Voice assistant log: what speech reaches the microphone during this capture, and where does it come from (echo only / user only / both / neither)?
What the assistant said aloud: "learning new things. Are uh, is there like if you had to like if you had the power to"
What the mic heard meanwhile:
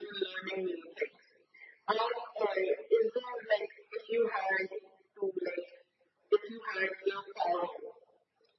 echo only